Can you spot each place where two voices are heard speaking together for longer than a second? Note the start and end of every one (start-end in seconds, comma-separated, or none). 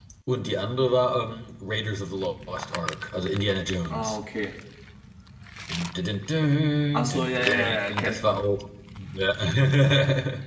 6.9-8.4